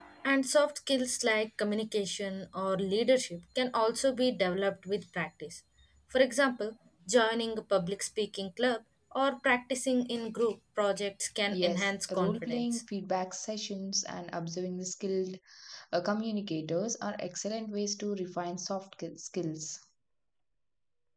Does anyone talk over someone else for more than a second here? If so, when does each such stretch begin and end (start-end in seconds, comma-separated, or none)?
11.5-12.8